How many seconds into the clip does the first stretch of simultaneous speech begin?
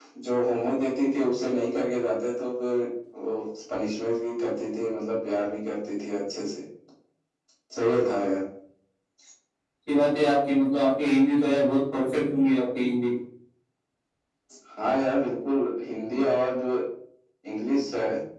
none

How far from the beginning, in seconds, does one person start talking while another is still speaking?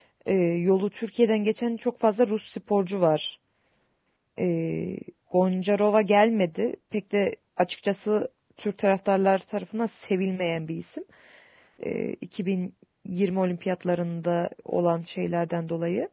none

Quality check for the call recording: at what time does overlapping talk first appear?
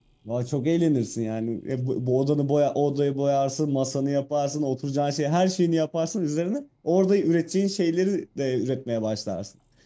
none

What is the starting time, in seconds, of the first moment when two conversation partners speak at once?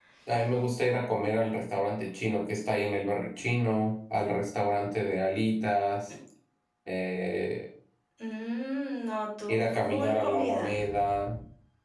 9.5 s

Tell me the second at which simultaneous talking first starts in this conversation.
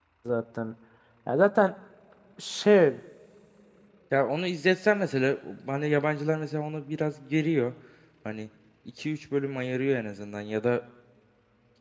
none

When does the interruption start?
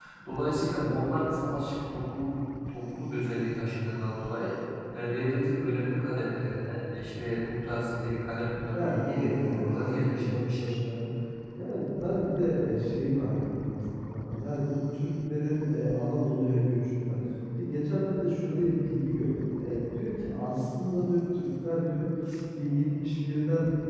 8.7 s

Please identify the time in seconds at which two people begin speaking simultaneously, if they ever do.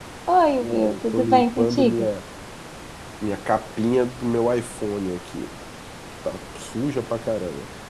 0.6 s

